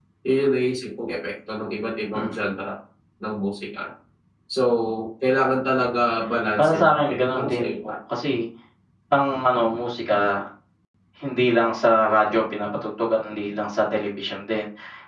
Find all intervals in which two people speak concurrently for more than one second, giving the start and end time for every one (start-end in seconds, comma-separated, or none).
6.6-7.9